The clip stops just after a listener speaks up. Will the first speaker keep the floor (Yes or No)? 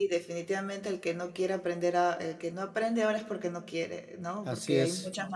Yes